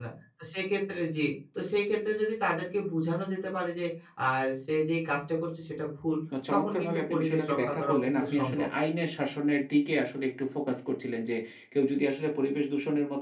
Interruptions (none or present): present